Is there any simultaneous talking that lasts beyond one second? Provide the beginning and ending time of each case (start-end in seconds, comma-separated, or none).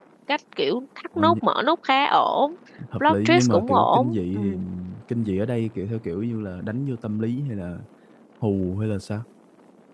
3.0-4.4